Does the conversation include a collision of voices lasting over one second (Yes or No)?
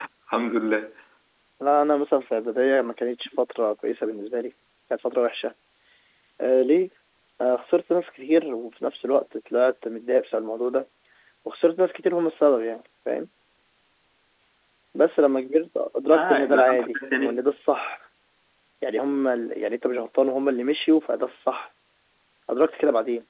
Yes